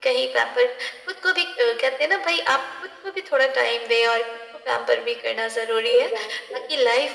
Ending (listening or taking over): listening